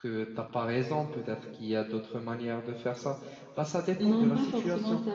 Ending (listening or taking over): taking over